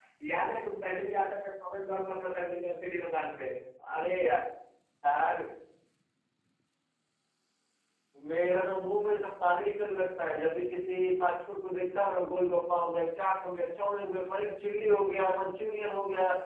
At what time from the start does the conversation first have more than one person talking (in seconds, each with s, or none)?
none